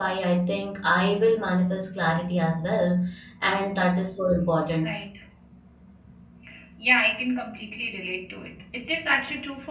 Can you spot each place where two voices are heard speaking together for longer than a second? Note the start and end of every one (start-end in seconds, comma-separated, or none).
none